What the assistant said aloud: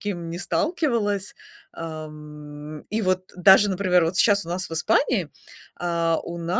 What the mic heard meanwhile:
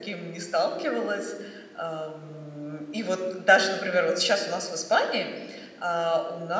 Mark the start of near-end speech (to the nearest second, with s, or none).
none